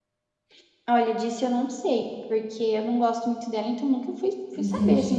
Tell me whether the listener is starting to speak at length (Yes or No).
Yes